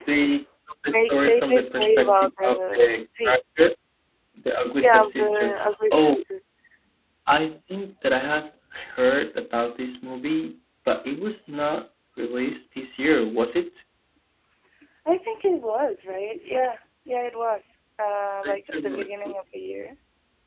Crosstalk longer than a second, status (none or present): present